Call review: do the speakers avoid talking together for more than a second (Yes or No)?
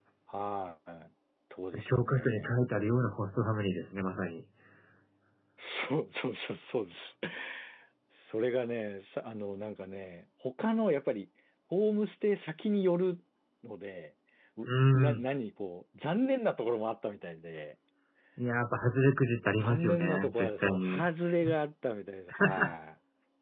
No